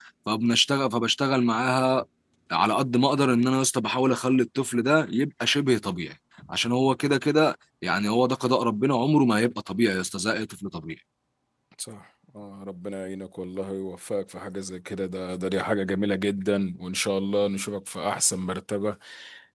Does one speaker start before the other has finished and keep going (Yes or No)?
No